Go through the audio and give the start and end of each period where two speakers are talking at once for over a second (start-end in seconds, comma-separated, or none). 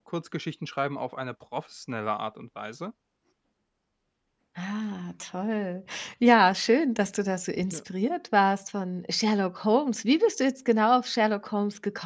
none